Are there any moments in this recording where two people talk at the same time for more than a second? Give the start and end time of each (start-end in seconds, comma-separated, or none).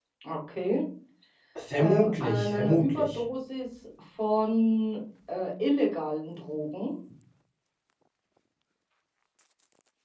1.8-3.2